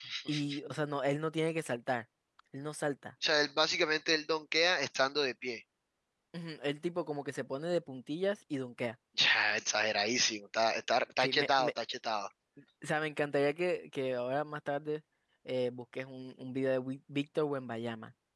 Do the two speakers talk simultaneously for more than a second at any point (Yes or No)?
No